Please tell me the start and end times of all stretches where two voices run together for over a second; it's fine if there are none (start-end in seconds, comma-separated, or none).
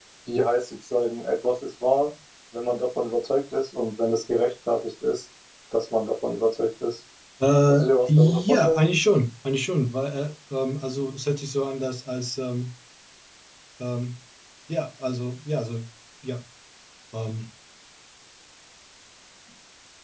7.7-8.9